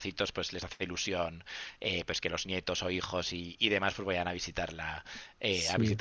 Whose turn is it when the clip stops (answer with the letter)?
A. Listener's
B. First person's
B